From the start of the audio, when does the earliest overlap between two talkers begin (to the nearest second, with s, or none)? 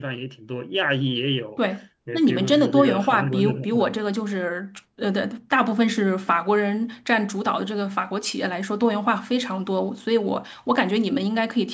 2 s